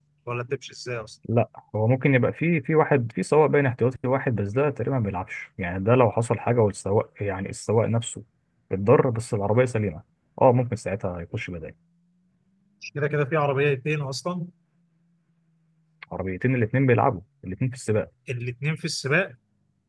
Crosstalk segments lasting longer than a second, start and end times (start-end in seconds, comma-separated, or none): none